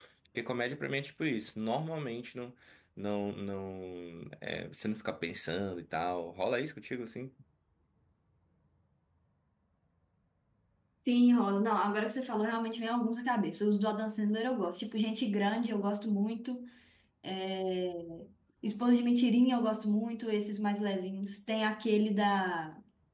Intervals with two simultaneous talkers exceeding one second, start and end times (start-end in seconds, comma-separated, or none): none